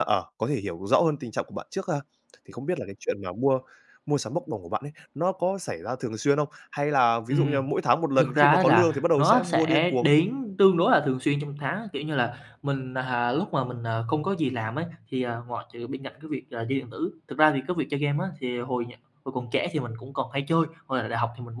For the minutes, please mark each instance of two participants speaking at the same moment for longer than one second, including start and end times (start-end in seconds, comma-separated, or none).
8.2-10.1